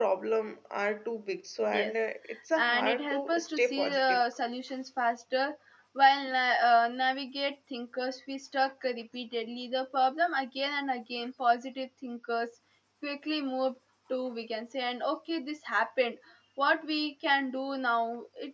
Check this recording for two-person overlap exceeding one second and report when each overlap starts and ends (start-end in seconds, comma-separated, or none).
2.5-4.2